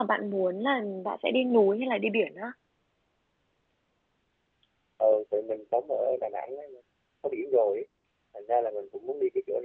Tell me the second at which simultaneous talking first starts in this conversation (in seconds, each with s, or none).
none